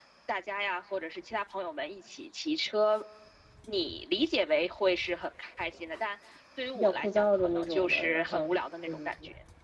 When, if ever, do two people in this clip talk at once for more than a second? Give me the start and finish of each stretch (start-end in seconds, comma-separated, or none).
6.8-8.5